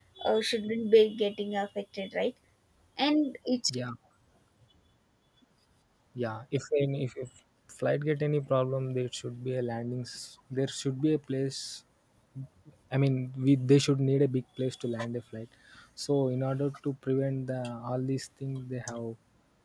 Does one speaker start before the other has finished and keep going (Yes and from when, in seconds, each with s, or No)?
No